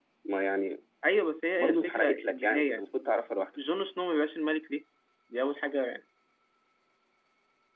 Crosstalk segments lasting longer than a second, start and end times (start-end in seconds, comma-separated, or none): 1.6-2.8